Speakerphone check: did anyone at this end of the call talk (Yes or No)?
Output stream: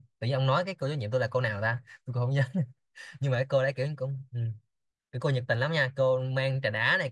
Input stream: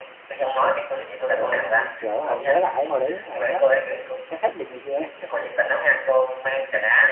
Yes